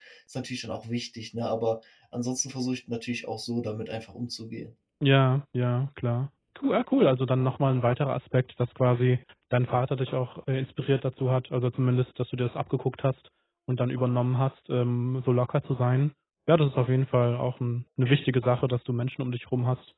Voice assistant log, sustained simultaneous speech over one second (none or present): none